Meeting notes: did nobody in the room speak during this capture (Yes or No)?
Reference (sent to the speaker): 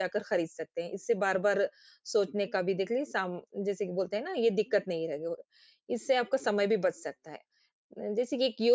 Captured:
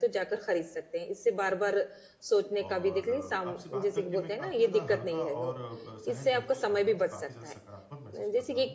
No